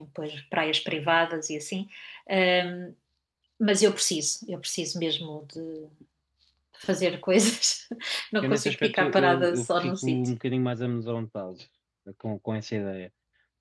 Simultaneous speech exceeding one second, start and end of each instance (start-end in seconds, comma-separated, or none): 8.4-10.2